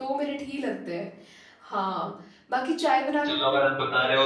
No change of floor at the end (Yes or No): No